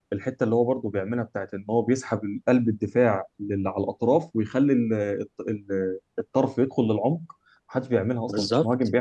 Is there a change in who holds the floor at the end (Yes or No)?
Yes